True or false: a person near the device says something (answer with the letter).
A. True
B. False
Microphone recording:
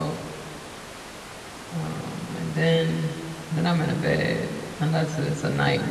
A